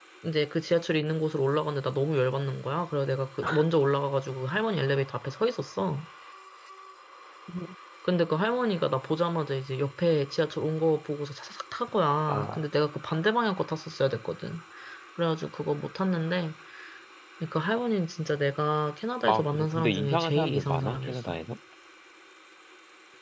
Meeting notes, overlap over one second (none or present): present